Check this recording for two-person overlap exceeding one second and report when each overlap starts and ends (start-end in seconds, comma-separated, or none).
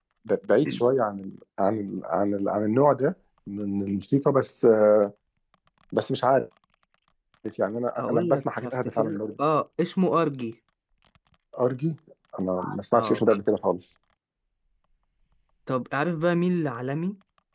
8.0-9.2